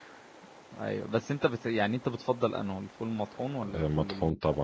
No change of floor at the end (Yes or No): No